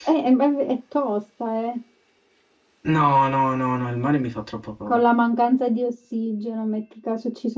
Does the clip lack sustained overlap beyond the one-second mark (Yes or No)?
Yes